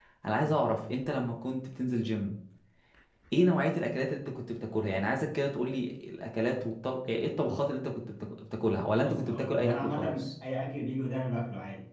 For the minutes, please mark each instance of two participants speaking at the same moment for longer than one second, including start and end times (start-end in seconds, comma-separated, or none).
8.9-10.3